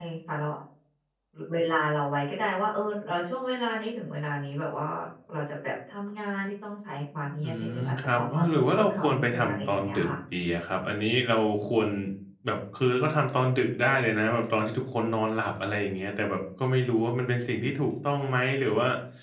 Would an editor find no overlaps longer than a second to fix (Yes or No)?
No